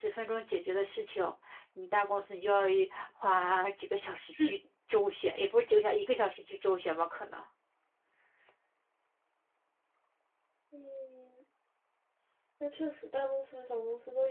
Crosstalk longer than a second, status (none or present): none